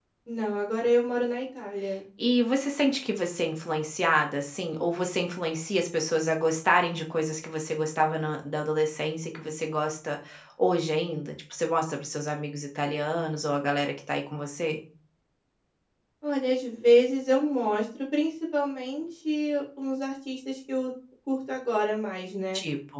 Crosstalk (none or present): none